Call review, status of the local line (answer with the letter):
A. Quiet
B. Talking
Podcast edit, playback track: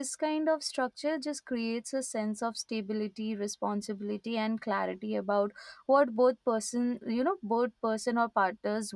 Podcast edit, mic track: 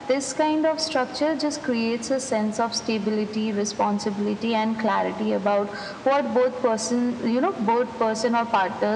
A